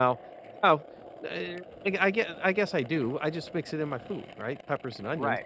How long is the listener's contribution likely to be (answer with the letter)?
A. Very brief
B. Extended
B